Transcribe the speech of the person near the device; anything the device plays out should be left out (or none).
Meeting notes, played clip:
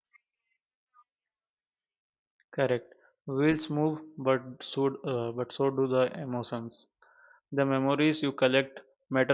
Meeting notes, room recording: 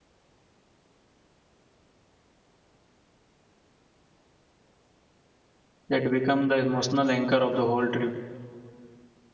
that becomes the emotional anchor of the whole trip.